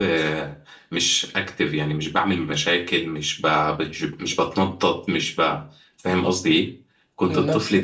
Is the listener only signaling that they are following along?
Yes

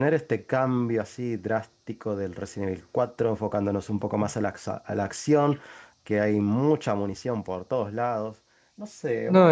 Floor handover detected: Yes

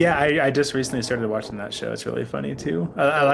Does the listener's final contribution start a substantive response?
No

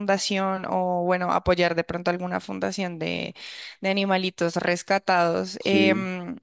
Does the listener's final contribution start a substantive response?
No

